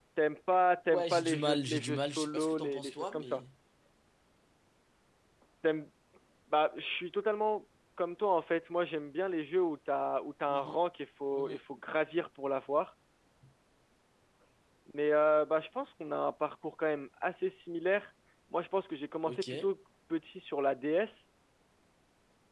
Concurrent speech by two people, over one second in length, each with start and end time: 0.9-3.4

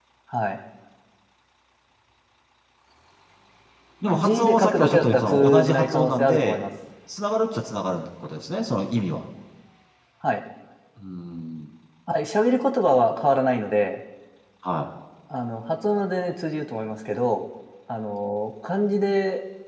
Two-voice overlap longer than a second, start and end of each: 4.1-6.6

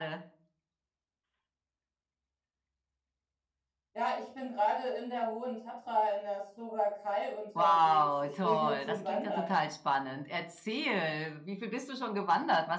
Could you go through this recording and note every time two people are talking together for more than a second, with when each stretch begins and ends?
7.6-9.5

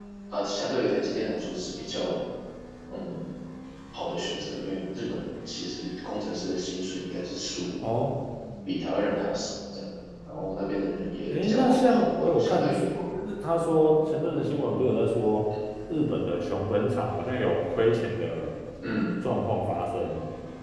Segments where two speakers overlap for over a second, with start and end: 11.3-12.6

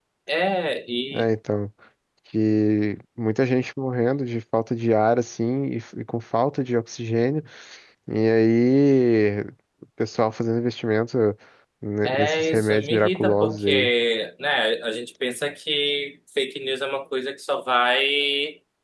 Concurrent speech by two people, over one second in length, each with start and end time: 12.1-13.9

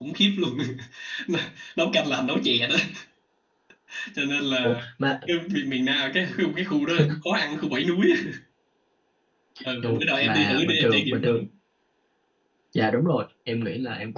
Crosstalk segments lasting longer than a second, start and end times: 9.8-11.4

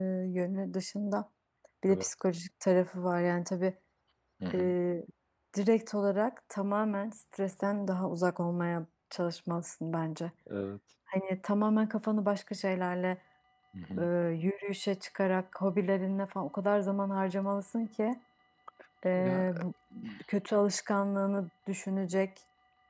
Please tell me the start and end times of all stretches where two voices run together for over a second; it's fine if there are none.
none

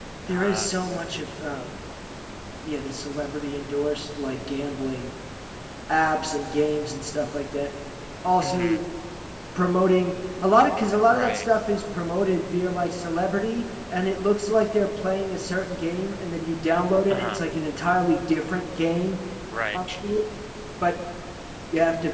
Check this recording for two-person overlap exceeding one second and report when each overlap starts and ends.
none

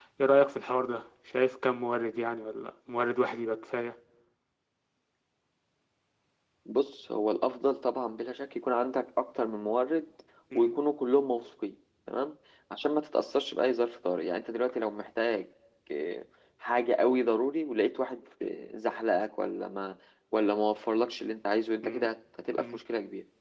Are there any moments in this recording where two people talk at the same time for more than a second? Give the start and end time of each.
none

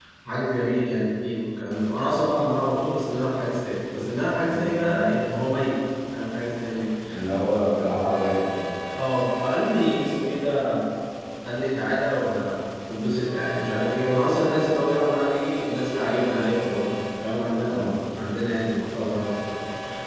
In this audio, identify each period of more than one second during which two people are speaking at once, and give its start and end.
none

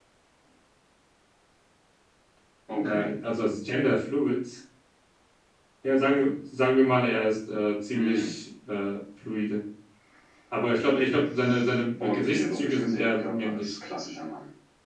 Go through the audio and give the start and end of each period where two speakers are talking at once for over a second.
12.0-13.8

